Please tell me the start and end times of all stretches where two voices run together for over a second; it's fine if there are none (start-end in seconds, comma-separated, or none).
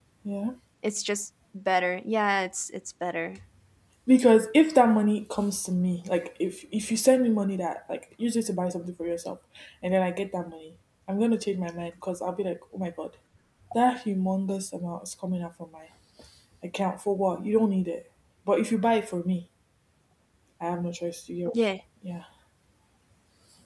none